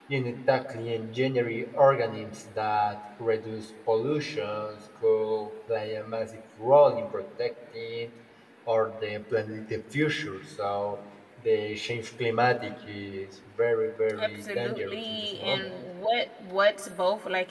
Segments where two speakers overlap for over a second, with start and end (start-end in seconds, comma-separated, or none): 14.2-15.7